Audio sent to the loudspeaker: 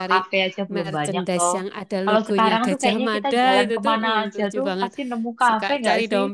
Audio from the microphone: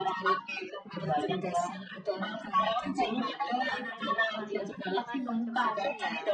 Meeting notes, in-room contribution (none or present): present